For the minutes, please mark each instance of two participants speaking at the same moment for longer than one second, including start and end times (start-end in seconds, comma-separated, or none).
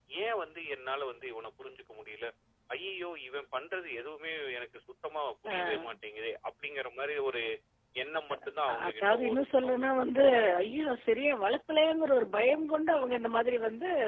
8.7-10.2